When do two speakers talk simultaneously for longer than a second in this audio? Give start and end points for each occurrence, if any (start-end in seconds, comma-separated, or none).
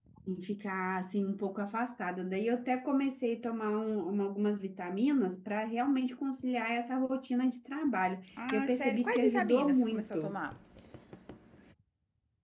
8.5-10.4